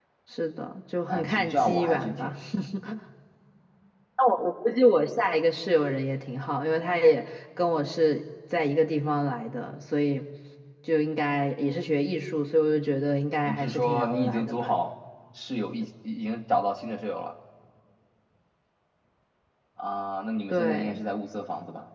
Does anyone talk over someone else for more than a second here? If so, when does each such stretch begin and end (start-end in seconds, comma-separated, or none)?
1.1-2.3, 13.4-14.7